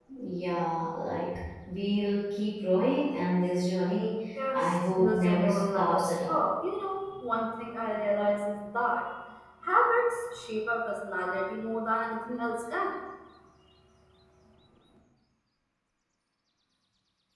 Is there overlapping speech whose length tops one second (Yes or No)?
Yes